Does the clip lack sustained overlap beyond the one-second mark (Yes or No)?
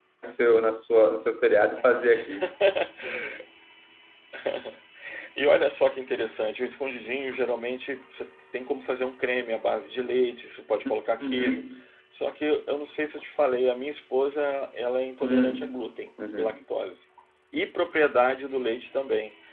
Yes